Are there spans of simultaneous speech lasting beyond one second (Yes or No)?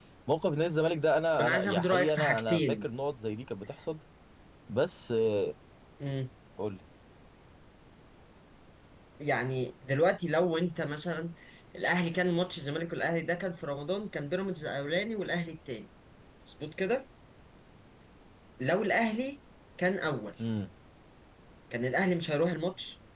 Yes